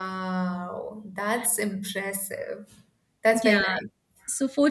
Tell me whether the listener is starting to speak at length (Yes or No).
Yes